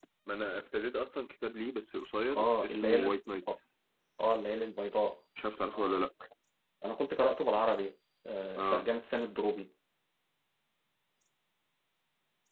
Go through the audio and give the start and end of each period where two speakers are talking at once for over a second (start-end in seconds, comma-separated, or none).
2.3-3.6